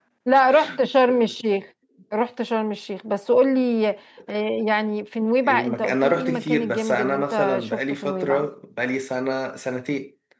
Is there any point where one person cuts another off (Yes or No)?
Yes